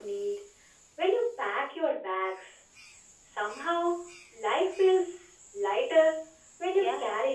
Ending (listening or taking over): taking over